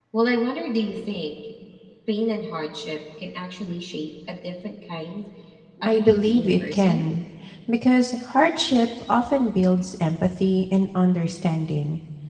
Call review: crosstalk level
present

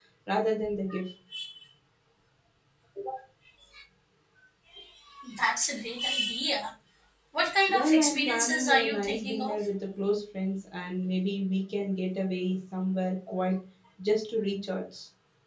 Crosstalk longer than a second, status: present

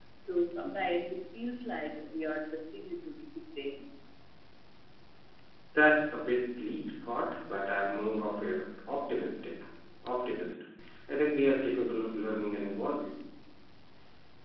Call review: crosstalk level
none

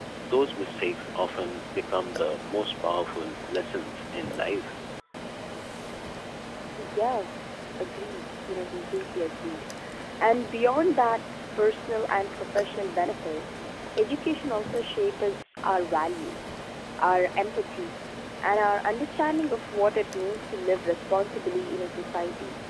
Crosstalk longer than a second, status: none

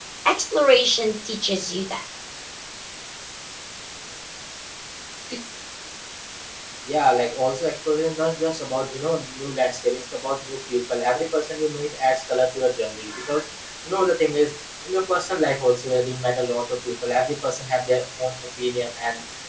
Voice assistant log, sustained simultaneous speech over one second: none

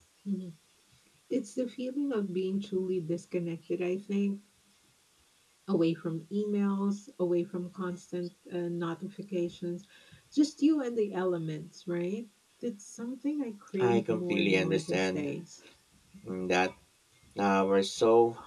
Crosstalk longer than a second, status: present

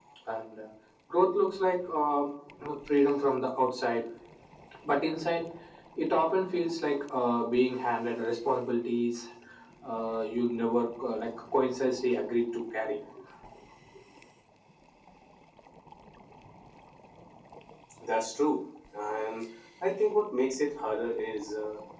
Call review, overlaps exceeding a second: none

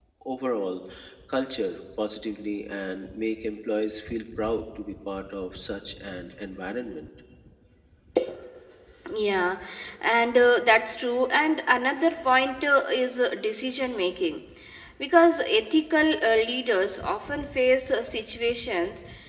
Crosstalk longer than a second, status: none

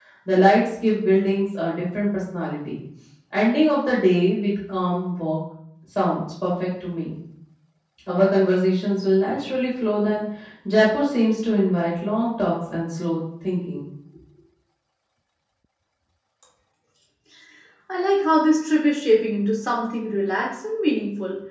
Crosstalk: none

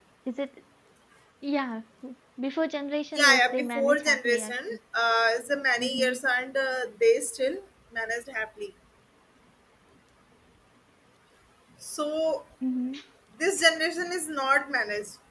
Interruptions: present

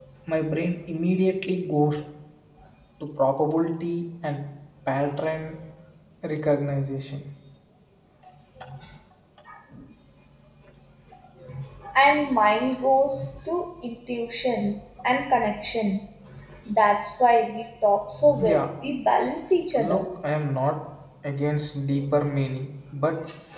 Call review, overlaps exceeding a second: none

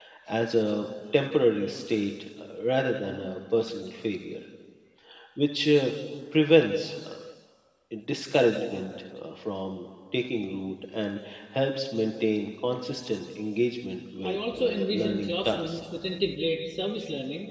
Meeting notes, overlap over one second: present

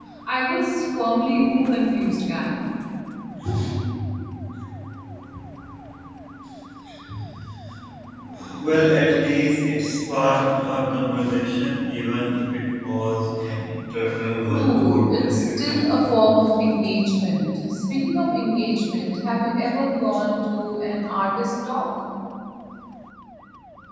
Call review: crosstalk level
present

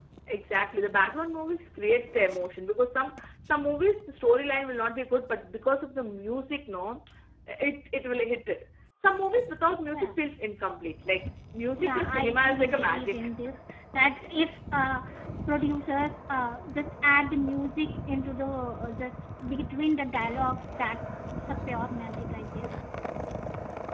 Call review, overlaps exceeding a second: present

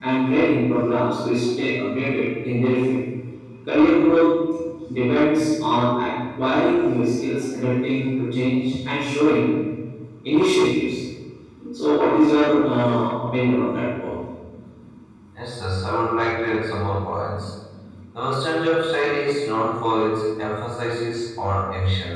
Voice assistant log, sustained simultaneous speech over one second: none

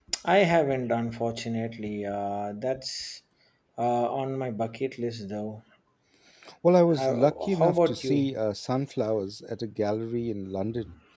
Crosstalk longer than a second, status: present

